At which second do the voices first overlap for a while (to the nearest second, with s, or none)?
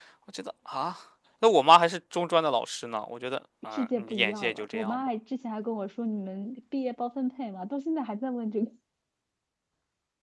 4 s